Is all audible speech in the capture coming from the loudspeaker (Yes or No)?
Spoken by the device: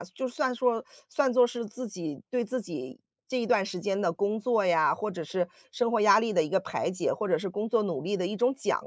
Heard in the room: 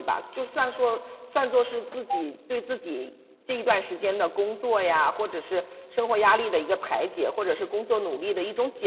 Yes